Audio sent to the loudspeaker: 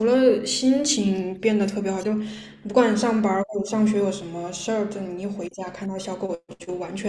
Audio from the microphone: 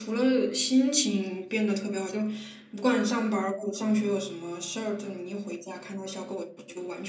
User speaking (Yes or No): No